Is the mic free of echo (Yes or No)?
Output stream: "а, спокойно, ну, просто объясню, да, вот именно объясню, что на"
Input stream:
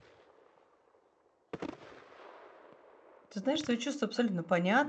Yes